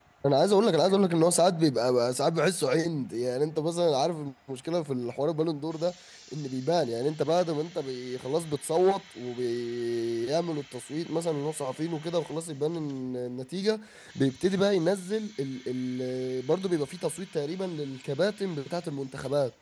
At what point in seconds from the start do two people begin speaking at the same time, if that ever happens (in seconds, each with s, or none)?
none